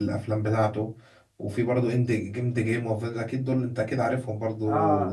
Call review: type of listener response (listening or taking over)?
taking over